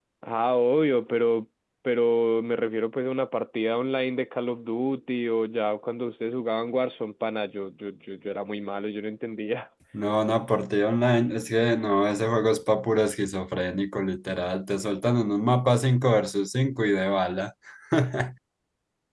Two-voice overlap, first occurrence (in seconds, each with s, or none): none